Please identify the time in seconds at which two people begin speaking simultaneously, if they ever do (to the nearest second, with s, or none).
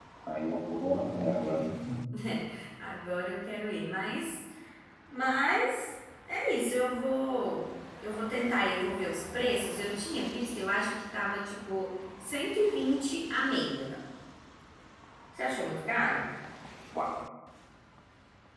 none